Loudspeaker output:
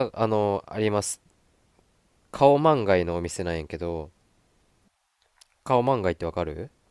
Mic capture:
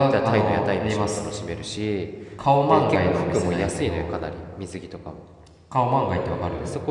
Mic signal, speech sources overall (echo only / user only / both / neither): both